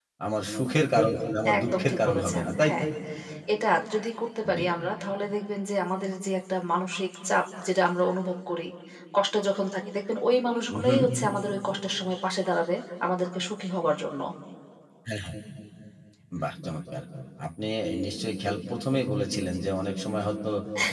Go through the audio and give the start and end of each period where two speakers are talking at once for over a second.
1.6-2.8

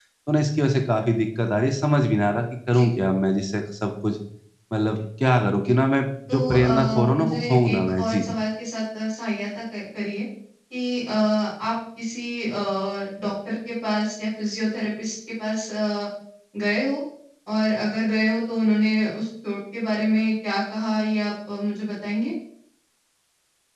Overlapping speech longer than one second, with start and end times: 6.3-8.3

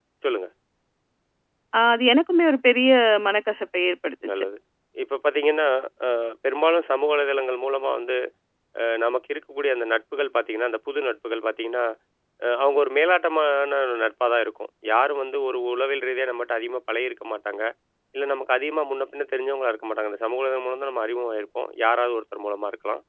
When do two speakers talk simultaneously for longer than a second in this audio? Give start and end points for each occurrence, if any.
none

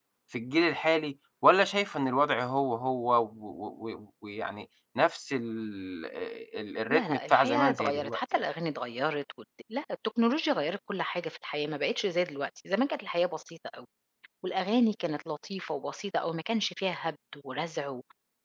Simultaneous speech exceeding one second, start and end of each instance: 6.9-8.2

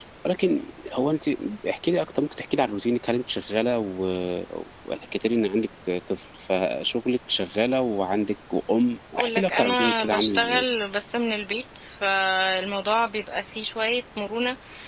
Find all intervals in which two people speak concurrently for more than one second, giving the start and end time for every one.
9.2-10.6

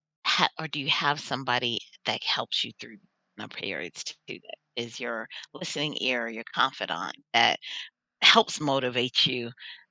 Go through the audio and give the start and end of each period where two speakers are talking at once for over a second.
none

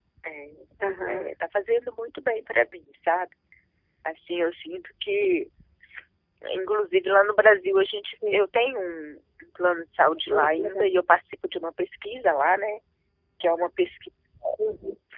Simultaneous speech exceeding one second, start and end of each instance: none

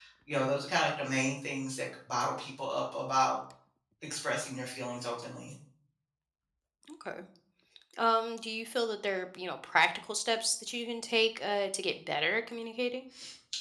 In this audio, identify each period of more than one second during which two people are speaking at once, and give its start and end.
none

